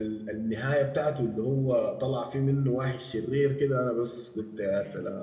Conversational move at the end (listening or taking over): taking over